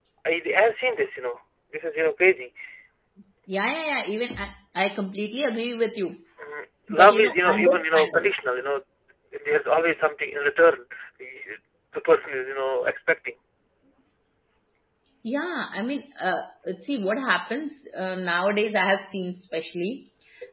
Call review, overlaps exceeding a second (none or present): present